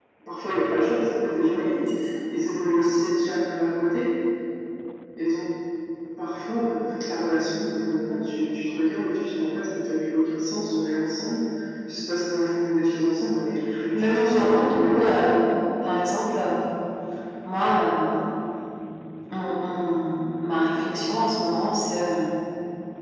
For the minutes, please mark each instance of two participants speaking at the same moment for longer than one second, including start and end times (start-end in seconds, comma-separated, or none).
13.9-15.2